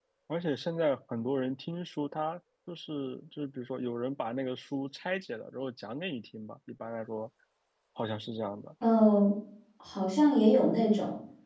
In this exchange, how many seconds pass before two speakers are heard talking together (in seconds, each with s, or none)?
none